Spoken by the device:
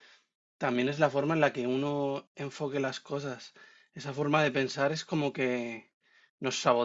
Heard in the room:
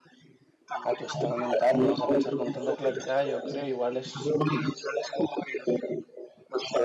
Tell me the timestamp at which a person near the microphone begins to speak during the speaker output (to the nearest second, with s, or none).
1 s